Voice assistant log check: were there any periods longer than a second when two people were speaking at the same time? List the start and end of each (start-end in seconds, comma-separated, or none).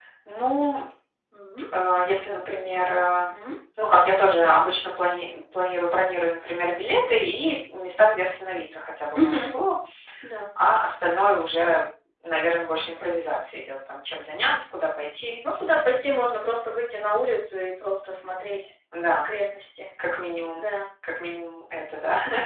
none